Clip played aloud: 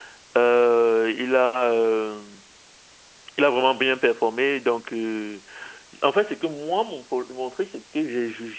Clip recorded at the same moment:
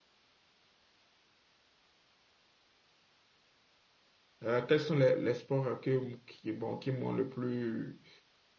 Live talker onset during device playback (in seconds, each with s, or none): 4.4 s